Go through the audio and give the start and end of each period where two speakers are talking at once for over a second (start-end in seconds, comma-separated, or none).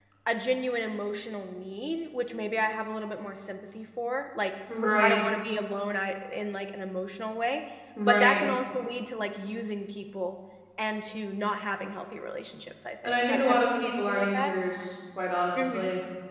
13.0-14.5